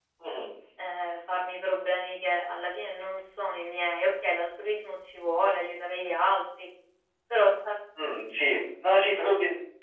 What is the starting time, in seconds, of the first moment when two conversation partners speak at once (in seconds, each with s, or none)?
none